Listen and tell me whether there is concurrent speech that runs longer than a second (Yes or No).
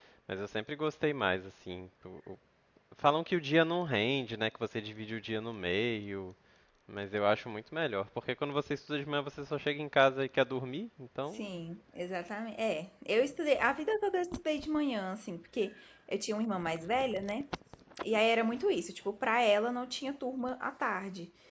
No